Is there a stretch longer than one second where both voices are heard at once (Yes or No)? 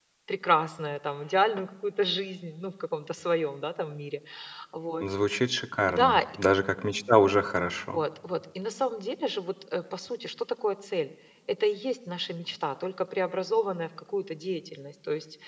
No